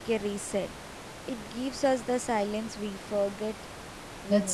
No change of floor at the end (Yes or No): No